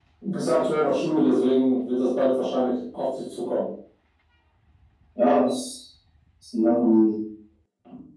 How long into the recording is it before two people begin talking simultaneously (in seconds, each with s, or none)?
none